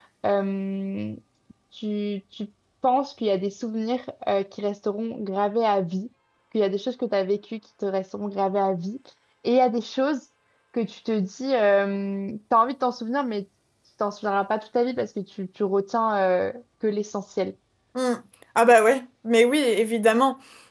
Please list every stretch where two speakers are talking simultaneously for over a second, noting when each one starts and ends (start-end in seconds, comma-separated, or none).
none